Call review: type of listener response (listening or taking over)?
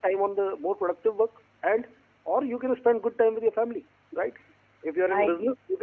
listening